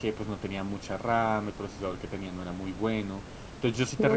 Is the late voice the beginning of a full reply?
No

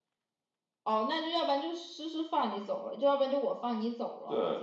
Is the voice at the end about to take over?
Yes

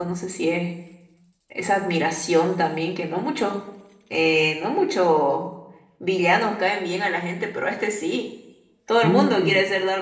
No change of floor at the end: No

